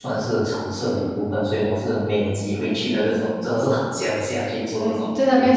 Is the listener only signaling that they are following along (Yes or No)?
No